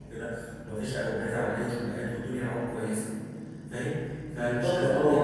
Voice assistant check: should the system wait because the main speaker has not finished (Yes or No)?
No